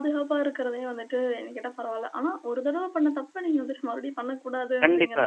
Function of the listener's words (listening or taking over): taking over